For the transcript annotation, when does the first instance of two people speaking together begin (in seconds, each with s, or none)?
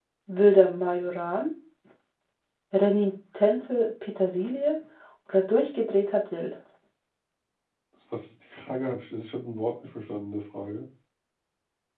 none